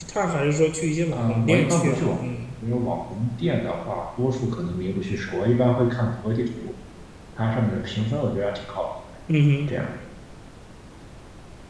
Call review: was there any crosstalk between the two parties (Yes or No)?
Yes